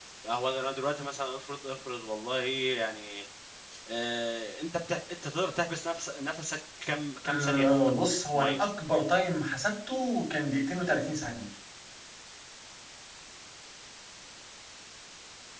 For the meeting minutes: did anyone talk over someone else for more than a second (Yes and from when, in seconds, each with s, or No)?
Yes, from 7.2 s